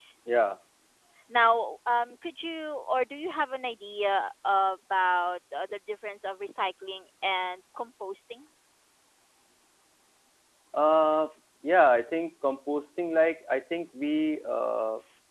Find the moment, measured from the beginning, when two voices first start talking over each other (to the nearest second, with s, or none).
none